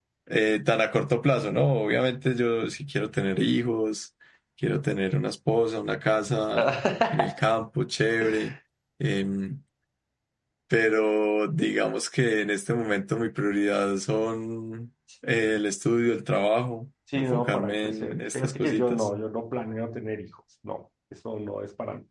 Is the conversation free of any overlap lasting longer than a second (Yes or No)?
No